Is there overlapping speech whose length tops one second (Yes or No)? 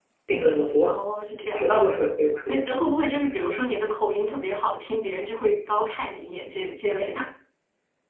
No